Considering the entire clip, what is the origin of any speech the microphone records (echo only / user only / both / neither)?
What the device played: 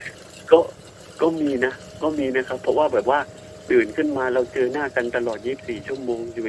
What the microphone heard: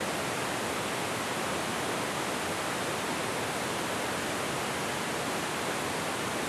neither